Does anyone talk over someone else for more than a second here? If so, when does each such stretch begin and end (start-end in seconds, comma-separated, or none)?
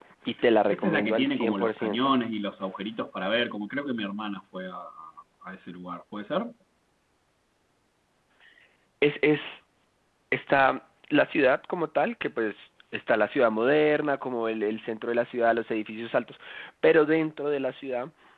0.7-2.2